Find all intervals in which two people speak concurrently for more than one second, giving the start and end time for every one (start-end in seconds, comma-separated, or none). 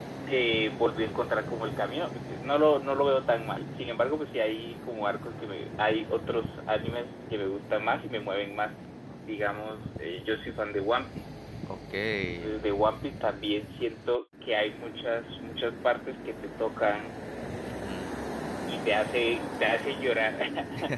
none